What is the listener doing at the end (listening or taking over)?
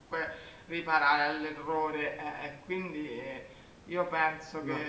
listening